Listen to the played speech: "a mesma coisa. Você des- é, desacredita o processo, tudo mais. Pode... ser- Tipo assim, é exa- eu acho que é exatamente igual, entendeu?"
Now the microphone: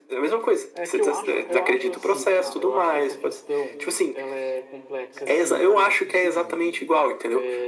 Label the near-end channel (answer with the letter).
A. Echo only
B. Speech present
B